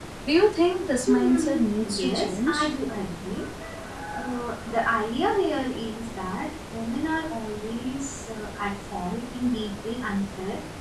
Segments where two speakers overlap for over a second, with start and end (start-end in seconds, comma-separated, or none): 1.1-2.7